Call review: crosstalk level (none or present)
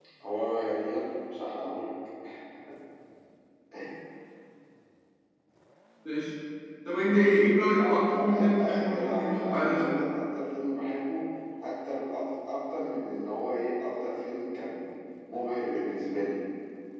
present